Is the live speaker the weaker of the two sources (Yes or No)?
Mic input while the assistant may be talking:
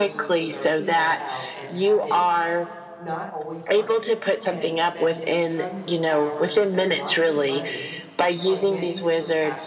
Yes